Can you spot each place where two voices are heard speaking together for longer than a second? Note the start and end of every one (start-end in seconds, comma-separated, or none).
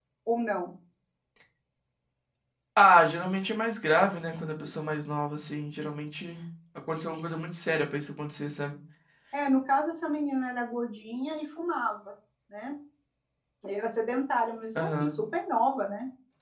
none